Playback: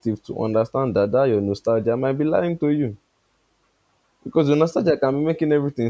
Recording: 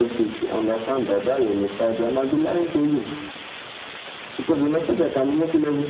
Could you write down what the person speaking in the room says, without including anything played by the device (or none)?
none